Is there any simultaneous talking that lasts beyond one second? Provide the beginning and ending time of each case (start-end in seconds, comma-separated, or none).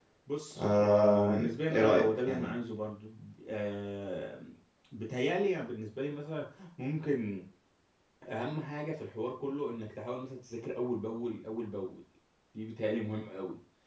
0.6-2.5